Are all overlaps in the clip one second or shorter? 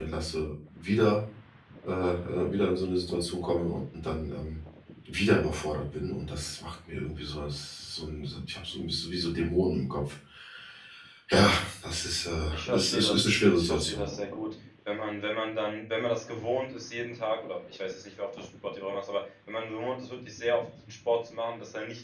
No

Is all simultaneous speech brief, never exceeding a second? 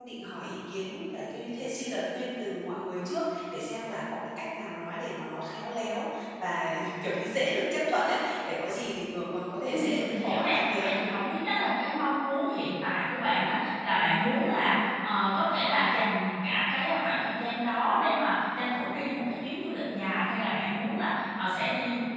No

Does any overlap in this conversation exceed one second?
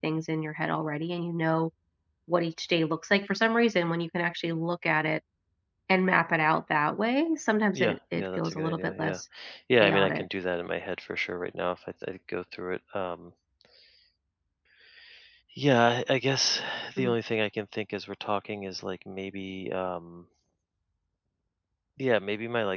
Yes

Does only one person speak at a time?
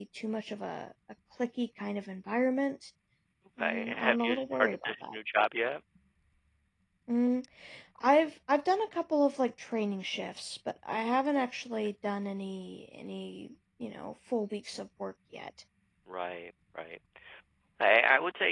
No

